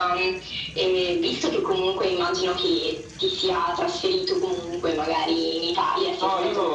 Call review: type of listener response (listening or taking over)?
taking over